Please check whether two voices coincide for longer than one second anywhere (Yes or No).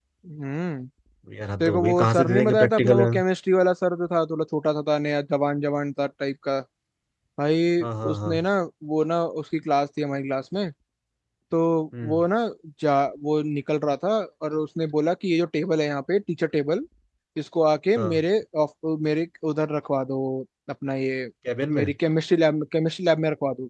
Yes